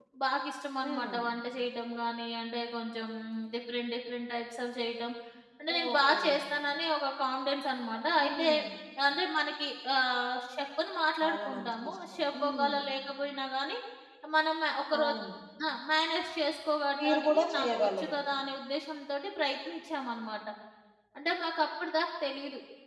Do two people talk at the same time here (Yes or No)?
Yes